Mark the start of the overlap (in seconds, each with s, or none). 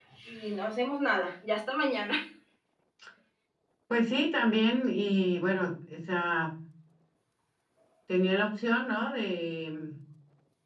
none